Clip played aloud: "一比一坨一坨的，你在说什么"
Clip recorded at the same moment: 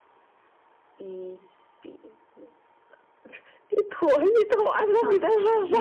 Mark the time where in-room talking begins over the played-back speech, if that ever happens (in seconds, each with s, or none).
4.9 s